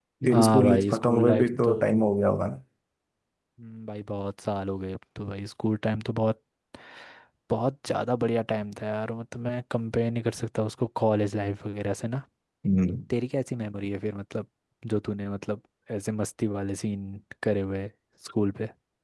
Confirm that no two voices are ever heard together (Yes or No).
No